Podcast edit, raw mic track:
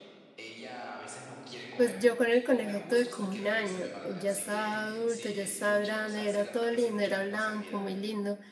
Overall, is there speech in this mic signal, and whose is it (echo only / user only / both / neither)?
both